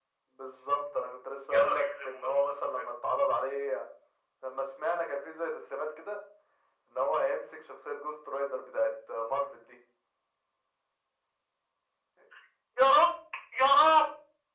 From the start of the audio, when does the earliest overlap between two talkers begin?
1.5 s

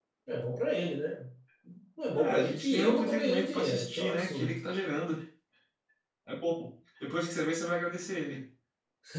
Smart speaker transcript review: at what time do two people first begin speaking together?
2.1 s

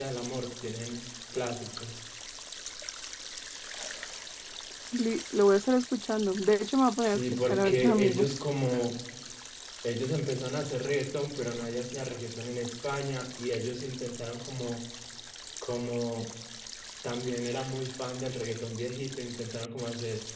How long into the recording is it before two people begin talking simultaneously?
7.0 s

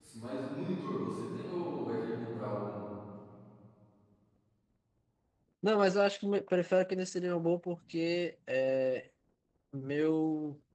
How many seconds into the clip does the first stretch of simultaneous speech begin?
none

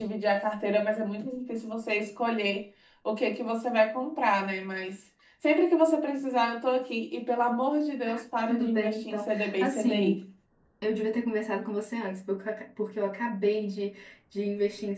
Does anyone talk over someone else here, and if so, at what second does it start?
8.5 s

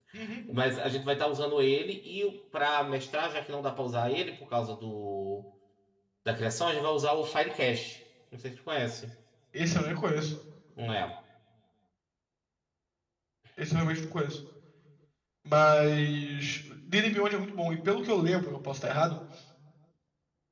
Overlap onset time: none

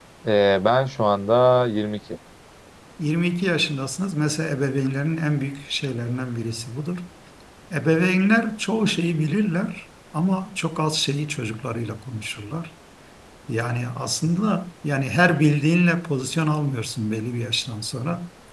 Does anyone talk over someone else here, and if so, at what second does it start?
none

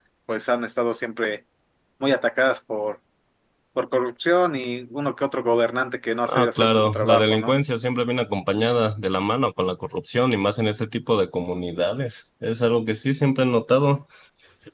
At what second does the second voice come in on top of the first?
6.2 s

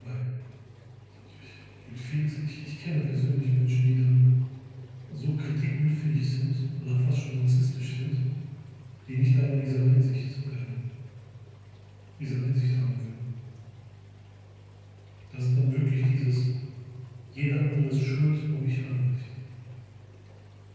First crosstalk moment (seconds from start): none

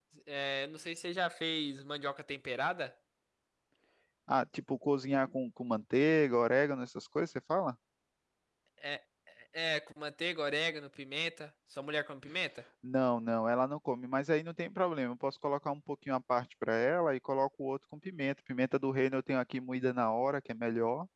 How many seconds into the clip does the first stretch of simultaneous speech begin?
none

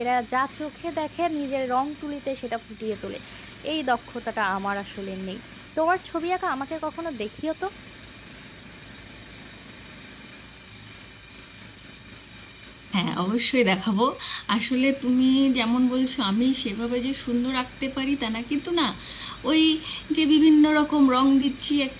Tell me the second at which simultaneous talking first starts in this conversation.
none

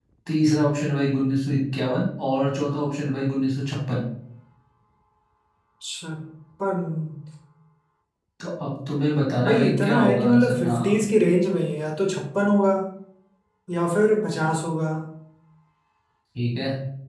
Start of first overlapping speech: 9.4 s

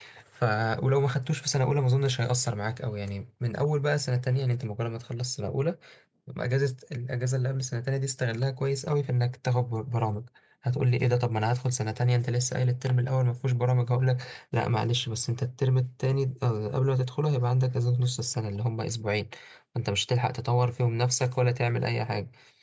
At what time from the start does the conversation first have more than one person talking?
none

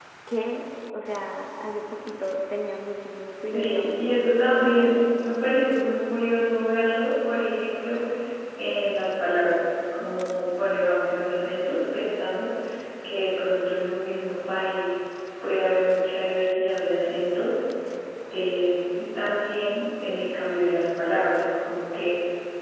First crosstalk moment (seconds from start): 3.5 s

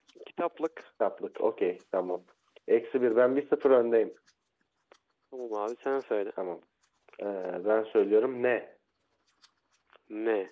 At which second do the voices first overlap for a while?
none

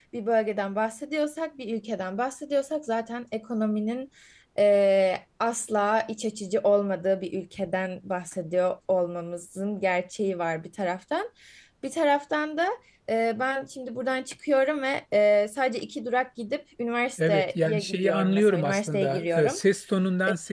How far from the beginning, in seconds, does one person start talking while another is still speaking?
17.2 s

